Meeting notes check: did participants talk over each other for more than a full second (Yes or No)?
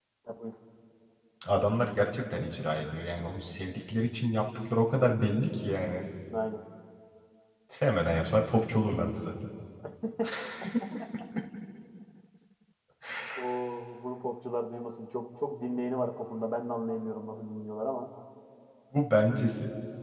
No